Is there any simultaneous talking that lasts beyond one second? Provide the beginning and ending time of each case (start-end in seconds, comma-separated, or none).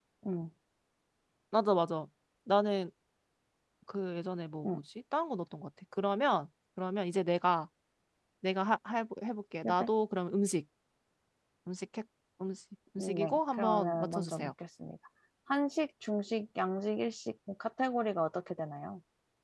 13.0-14.5